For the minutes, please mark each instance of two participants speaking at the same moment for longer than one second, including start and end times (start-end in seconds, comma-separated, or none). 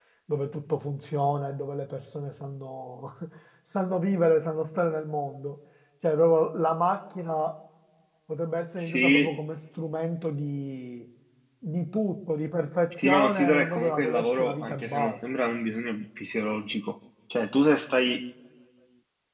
13.0-15.1